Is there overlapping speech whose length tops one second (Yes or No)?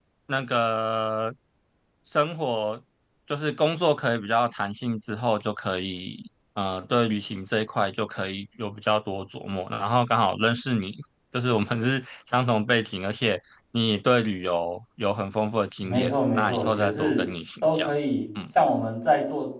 Yes